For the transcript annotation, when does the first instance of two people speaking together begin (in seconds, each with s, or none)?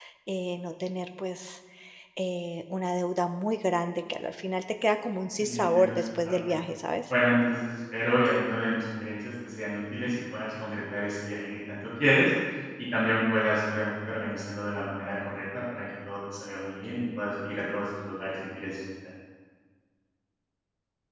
5.3 s